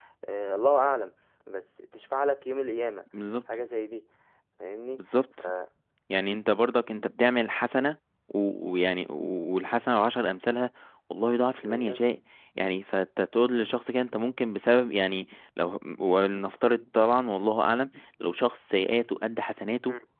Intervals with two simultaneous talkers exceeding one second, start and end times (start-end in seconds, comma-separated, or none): none